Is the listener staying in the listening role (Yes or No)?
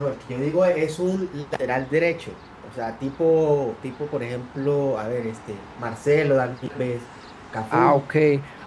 No